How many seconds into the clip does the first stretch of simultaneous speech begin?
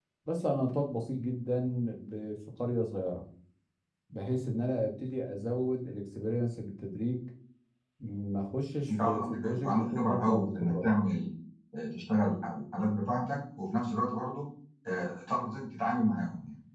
9 s

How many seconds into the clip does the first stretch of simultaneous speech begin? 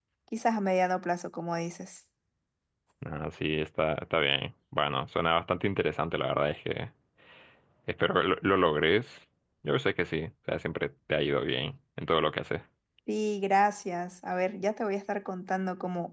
none

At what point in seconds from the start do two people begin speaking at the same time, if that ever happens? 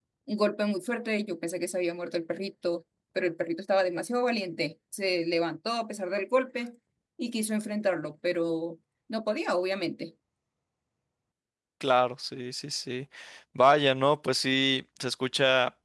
none

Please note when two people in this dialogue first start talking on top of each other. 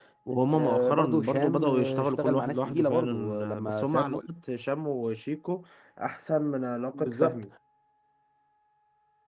1 s

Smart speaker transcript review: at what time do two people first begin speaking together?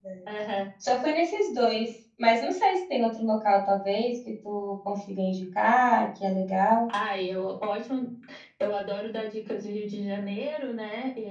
none

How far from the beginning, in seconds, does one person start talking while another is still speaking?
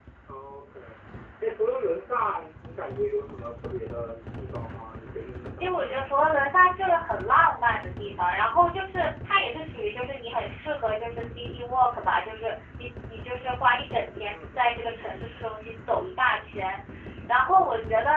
6 s

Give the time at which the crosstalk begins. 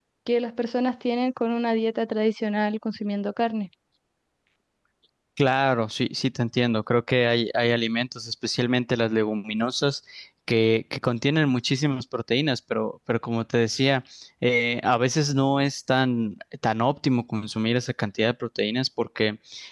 none

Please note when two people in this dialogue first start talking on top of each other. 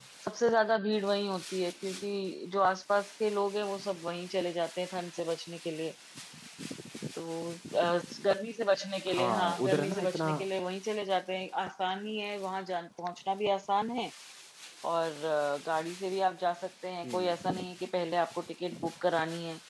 9 s

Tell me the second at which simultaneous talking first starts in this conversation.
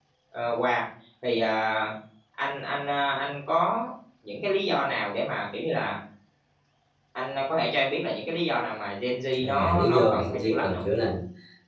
9 s

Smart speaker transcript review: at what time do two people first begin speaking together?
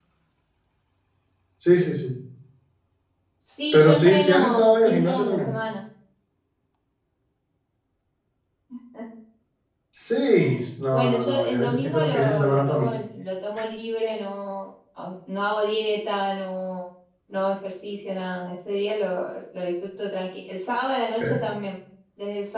4 s

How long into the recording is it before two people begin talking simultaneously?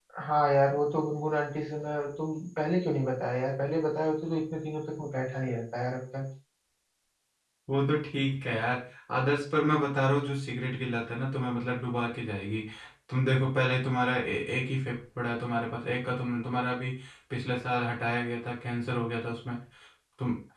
none

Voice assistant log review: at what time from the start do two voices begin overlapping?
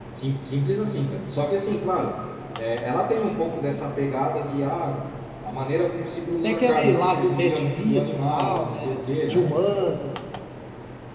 6 s

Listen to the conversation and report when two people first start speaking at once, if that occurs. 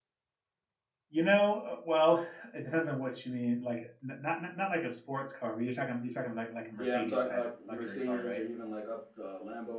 7 s

